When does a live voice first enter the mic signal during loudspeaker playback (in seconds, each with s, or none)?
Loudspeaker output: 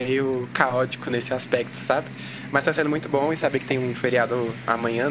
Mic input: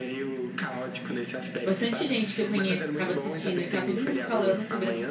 1.6 s